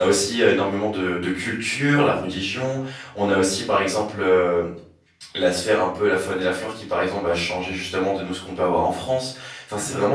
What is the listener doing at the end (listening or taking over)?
listening